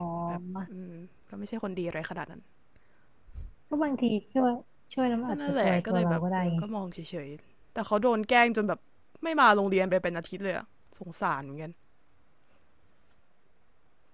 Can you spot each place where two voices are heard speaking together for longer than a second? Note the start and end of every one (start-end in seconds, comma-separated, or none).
5.3-6.6